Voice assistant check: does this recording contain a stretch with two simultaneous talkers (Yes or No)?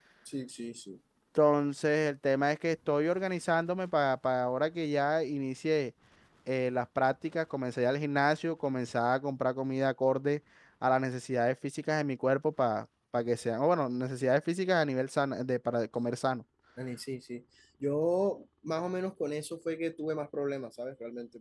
No